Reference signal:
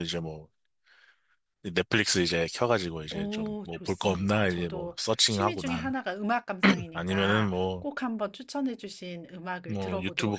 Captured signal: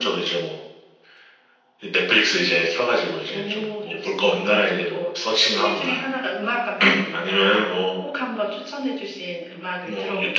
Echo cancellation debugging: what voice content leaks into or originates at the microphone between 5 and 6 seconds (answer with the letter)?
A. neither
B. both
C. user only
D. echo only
D